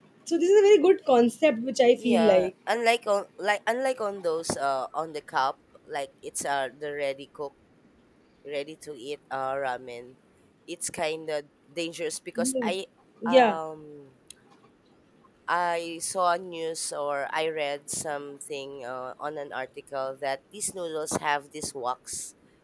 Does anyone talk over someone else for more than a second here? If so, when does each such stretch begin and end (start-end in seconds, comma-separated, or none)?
none